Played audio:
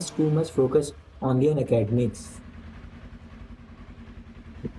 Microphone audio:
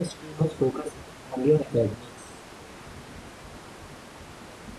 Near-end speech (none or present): none